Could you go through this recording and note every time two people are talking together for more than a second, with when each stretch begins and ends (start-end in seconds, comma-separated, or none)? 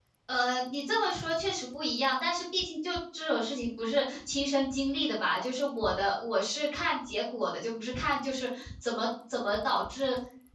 none